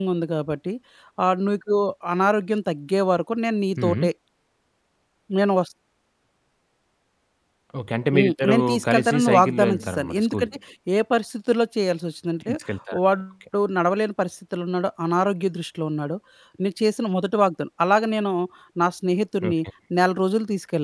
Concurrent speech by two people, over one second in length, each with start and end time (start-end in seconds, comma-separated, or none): 8.1-10.6